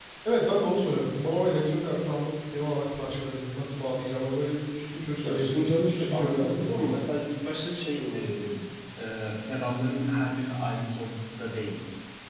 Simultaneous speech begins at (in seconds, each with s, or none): 5.2 s